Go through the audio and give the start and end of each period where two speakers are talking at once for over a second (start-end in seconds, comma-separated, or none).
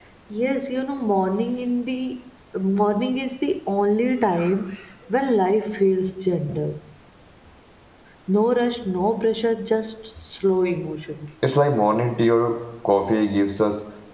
none